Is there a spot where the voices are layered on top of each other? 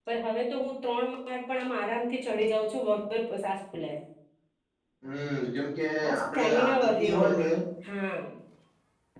Yes, from 6.0 s

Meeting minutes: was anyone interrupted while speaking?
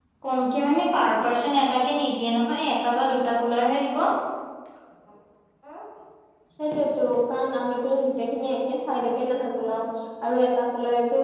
No

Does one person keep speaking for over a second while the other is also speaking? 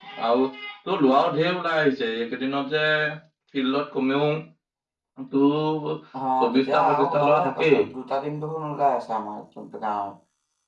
Yes, from 6.4 s

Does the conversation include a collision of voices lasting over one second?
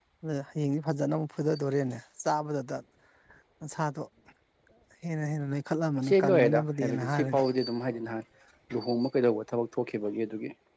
Yes, from 6.0 s

